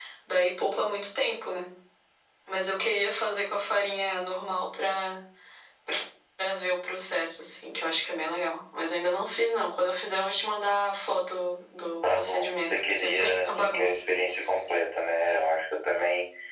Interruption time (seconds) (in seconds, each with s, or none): 12.0 s